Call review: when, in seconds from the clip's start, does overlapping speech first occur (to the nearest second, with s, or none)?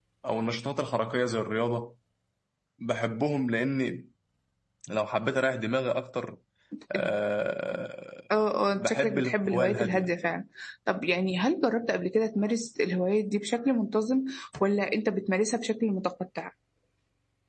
9 s